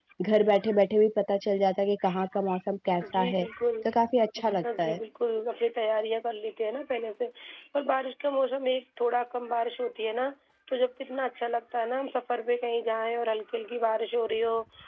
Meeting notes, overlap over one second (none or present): none